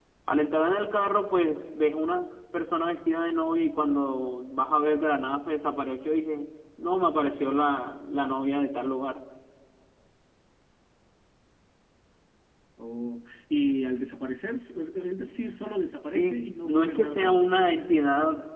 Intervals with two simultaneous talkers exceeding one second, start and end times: 16.1-17.4

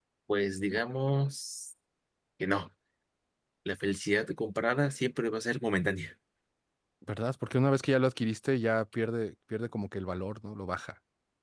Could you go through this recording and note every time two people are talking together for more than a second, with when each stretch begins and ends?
none

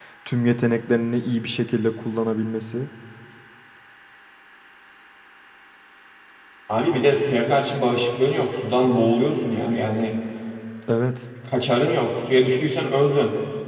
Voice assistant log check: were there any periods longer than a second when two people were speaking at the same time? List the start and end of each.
none

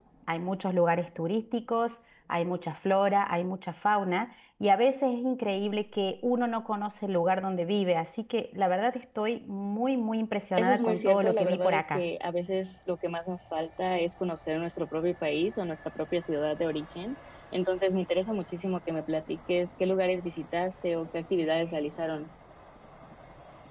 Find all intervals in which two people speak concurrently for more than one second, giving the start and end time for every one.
10.6-12.0

